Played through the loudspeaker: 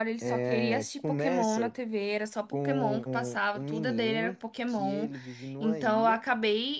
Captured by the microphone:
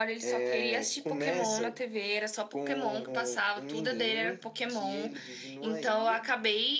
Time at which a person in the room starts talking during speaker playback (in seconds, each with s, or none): none